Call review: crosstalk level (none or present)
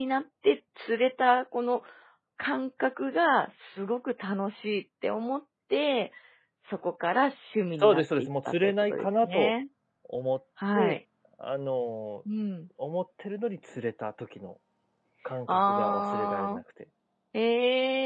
present